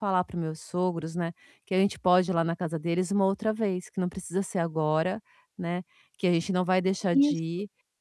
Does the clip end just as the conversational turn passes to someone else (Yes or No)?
No